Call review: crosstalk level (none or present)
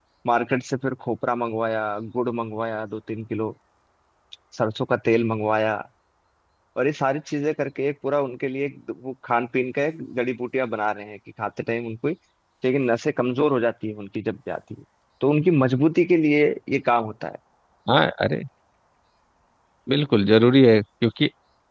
none